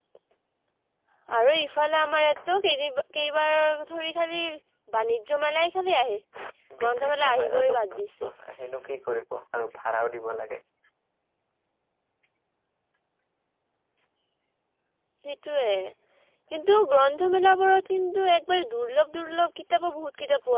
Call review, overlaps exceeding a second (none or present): present